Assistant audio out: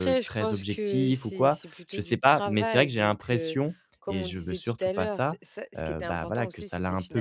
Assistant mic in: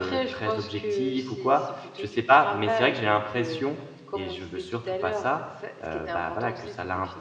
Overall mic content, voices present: echo only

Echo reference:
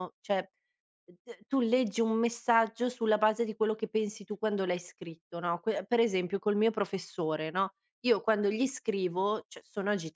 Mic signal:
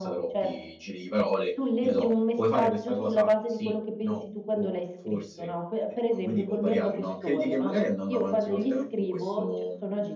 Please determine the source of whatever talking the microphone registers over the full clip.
both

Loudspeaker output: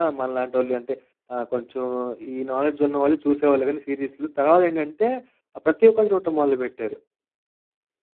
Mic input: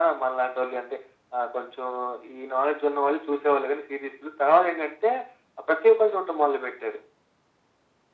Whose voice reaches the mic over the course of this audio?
echo only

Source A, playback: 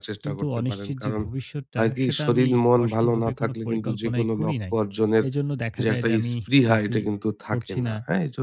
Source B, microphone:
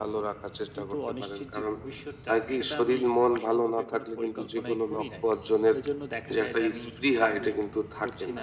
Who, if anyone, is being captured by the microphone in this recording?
echo only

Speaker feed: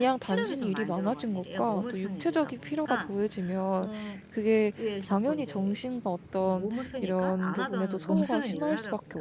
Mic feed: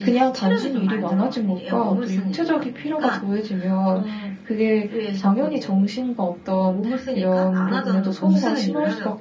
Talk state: echo only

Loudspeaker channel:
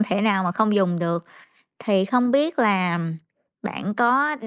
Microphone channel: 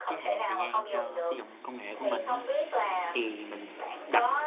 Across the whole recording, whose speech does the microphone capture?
both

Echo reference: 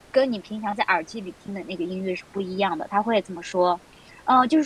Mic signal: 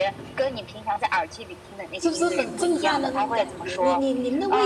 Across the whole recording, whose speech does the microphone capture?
both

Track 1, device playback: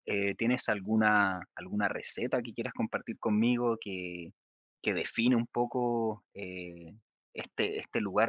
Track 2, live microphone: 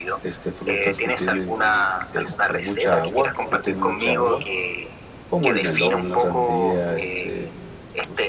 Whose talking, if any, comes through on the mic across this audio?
both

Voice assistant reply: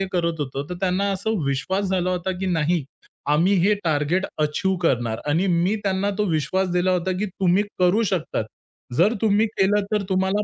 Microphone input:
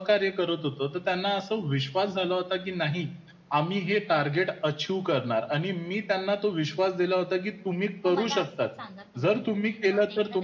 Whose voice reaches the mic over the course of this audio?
both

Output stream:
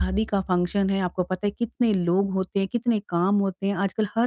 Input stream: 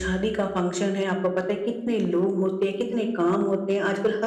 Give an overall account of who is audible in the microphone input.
echo only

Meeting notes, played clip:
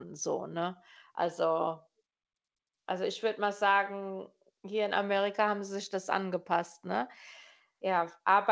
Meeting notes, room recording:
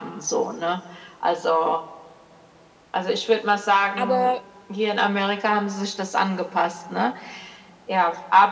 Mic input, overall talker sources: both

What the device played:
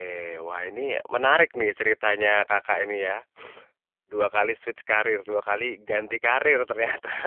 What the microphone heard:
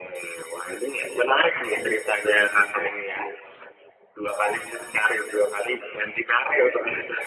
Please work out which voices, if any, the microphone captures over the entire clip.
echo only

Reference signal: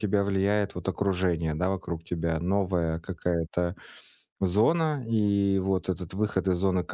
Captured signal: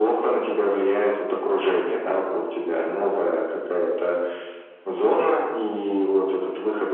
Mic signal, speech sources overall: echo only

